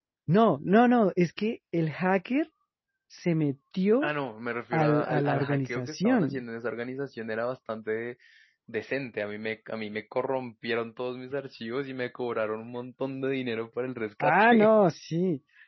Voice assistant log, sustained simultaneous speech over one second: present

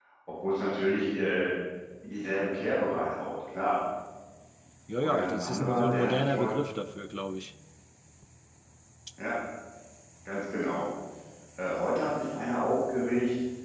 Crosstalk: present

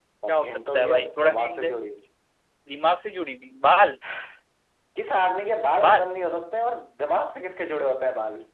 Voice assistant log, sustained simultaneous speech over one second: present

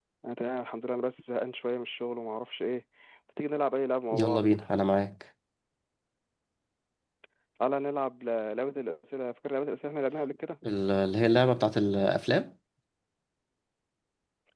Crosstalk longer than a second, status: none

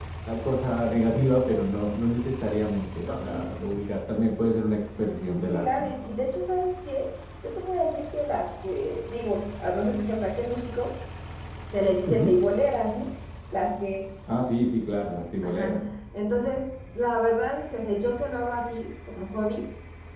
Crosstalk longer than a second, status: none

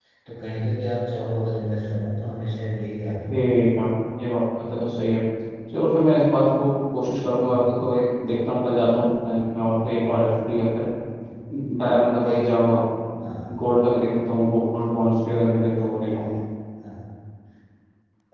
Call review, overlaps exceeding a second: none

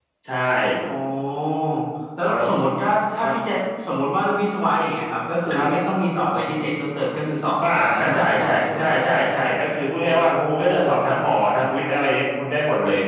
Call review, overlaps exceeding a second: present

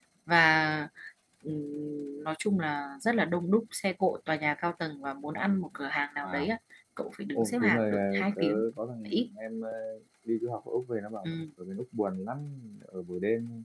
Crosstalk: present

